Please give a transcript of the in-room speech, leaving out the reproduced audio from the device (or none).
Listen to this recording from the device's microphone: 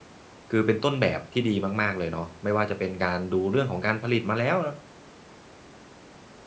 คือเป็นต้นแบบที่ดีมากๆเลยเนาะไม่ว่าจะเป็นการดูเรื่องของการผลิตมาแล้ว